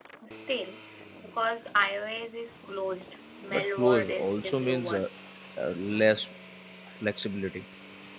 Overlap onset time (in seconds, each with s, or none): 3.5 s